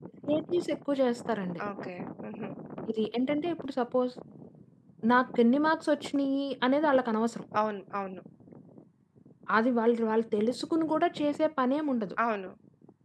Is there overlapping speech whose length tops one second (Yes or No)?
No